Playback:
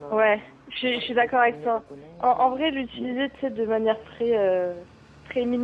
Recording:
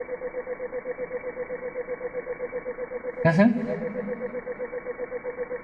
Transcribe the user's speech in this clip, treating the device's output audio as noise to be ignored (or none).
Mhm.